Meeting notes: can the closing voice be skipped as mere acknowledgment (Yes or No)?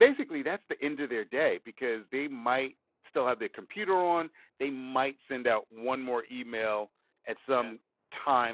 Yes